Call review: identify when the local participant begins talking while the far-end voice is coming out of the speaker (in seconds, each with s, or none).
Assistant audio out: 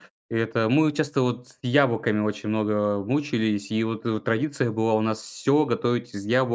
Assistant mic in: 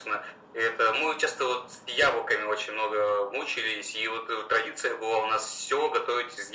none